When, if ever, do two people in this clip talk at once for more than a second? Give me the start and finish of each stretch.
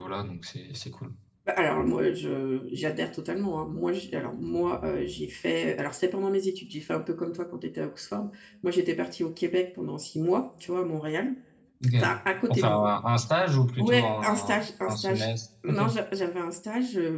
13.8-15.3

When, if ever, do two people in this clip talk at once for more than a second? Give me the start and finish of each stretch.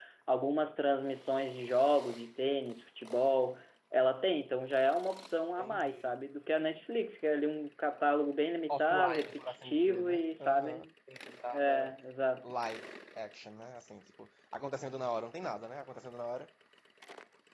8.7-10.8

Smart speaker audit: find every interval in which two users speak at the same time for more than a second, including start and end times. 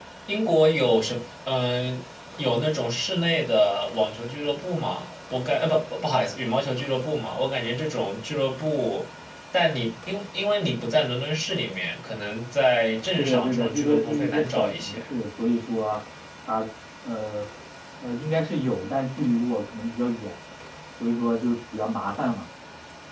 13.2-15.0

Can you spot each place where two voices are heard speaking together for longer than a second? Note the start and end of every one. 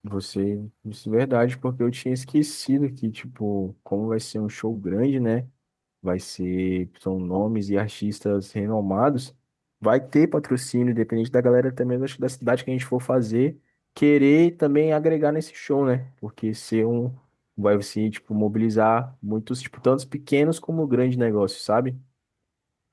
none

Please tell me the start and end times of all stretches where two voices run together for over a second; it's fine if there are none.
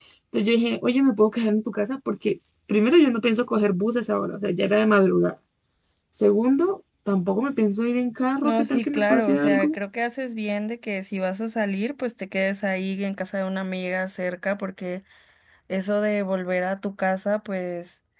8.4-9.8

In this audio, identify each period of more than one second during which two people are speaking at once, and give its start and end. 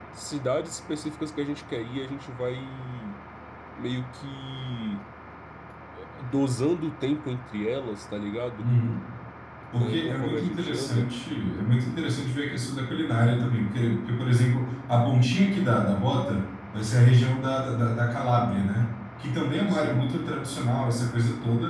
9.7-11.1

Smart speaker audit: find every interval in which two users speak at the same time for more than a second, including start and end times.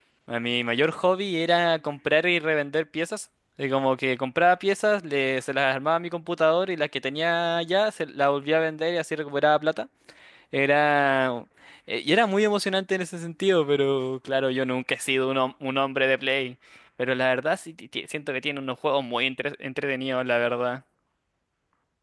none

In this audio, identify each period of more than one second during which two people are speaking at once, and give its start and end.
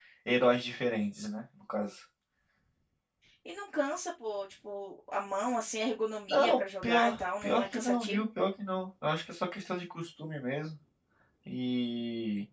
6.3-8.2

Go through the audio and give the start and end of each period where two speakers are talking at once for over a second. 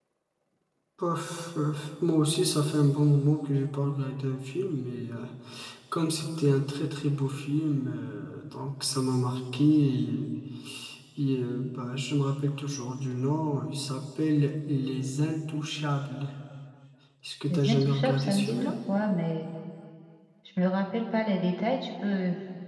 17.5-18.7

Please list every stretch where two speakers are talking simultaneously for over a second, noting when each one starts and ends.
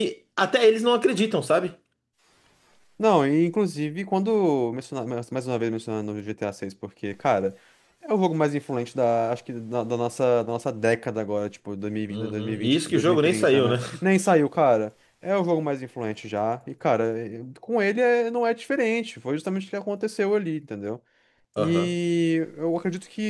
12.1-13.8

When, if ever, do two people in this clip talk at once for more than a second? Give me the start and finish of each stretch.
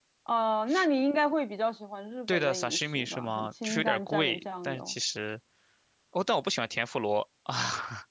2.3-4.9

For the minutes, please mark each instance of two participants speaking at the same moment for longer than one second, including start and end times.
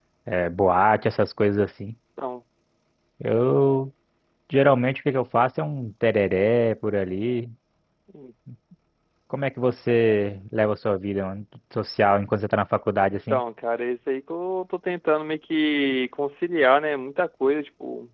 none

